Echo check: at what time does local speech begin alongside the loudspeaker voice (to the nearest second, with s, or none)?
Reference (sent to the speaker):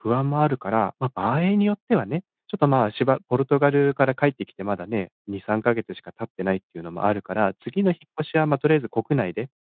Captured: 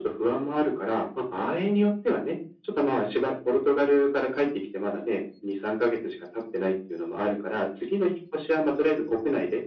none